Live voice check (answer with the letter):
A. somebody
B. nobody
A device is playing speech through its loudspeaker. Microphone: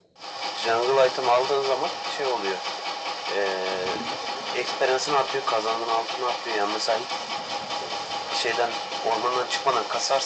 B